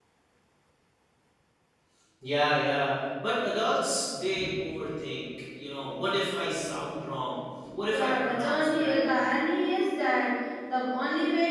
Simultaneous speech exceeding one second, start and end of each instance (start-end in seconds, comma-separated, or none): 7.9-9.3